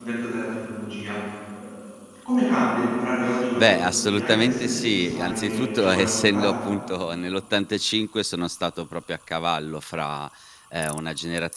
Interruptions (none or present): present